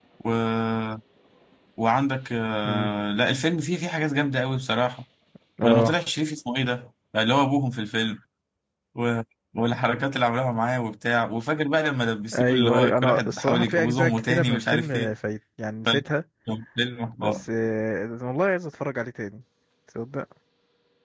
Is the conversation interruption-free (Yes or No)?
No